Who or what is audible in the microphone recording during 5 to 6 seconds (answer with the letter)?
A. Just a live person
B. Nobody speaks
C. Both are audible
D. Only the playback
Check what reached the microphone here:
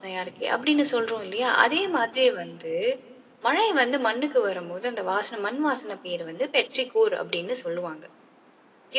D